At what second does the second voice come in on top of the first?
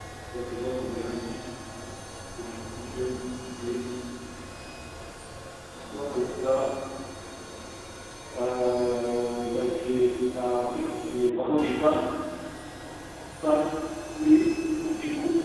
none

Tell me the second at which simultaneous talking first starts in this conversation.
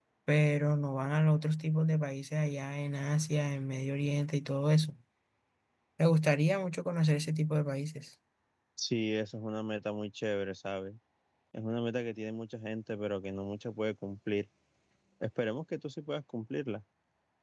none

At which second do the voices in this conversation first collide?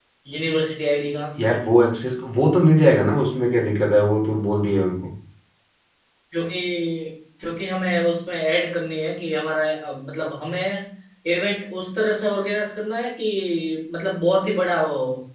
none

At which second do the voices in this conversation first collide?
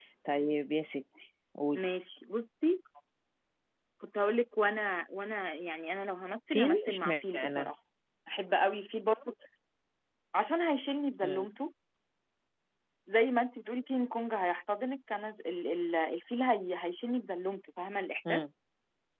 6.5 s

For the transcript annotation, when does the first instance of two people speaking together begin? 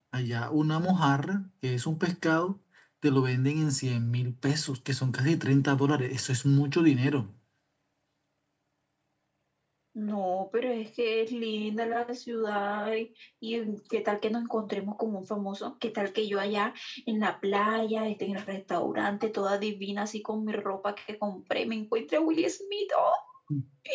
none

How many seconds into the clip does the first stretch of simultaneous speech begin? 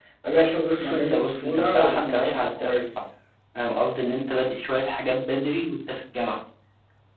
0.7 s

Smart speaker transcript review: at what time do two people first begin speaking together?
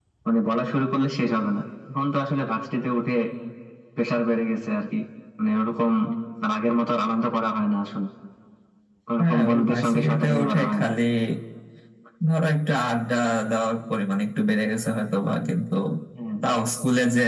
9.2 s

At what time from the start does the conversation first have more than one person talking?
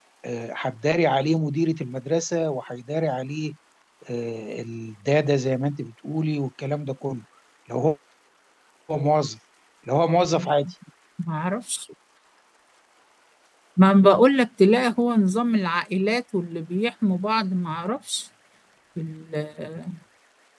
none

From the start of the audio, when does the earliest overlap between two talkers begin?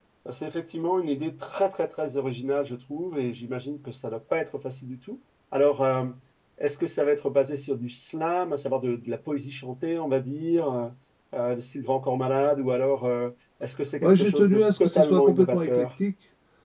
14.0 s

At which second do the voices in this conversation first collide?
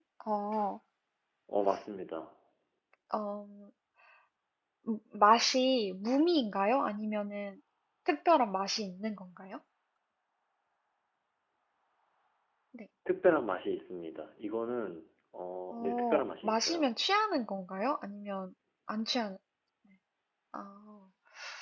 15.7 s

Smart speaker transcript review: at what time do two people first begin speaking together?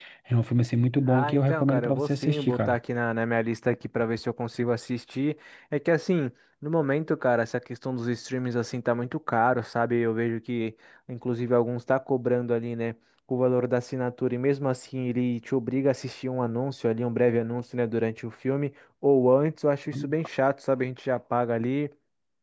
1.1 s

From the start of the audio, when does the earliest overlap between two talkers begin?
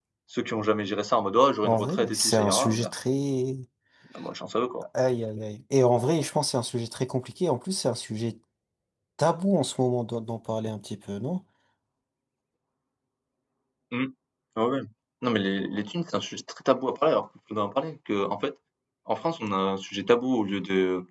1.6 s

